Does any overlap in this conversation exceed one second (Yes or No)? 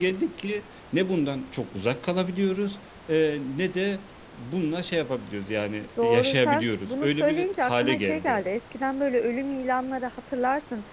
Yes